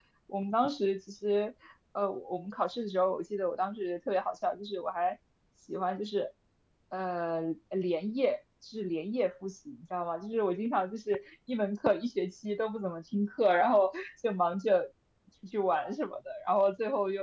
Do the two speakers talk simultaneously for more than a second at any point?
No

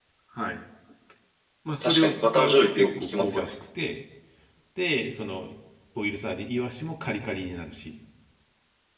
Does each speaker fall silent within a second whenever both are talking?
No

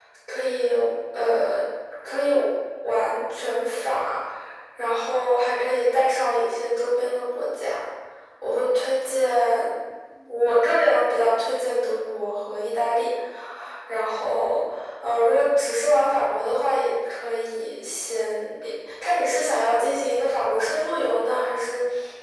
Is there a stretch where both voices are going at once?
No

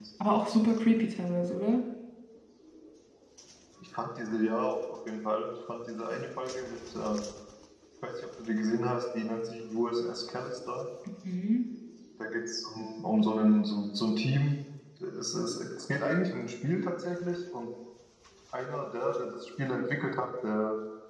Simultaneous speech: No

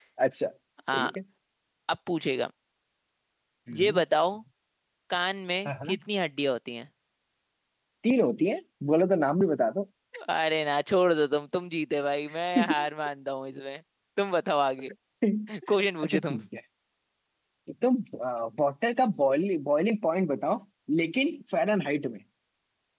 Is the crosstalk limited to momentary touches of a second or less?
Yes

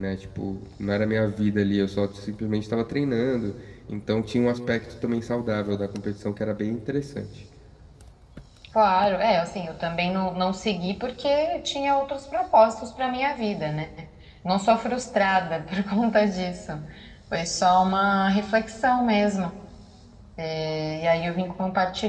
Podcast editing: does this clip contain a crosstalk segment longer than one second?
No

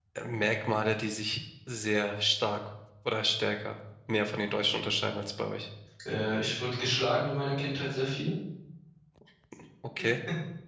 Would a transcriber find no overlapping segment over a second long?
Yes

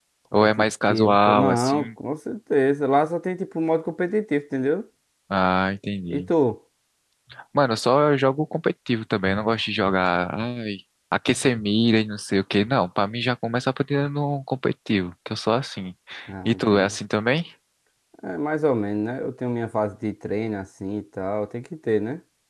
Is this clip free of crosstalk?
No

